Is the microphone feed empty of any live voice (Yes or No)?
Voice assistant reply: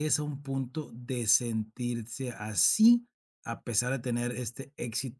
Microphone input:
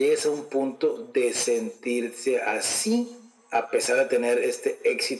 Yes